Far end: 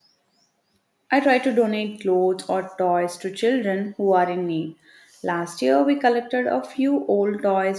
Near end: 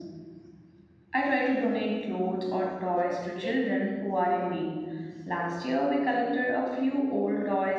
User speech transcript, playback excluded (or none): though it